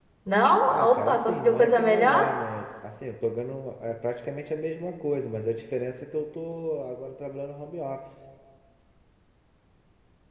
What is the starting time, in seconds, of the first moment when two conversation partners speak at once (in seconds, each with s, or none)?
0.7 s